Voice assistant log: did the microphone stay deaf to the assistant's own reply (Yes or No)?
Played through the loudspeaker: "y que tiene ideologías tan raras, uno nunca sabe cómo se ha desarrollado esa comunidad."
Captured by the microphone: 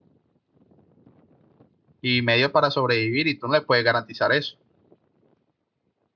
Yes